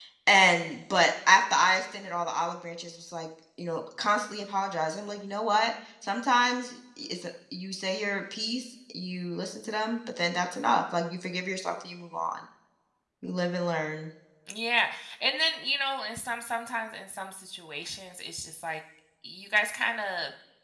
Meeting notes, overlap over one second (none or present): none